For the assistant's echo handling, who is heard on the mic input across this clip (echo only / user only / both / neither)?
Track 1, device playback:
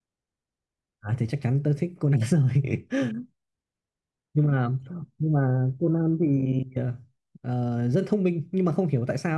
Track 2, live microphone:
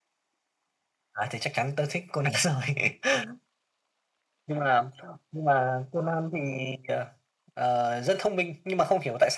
echo only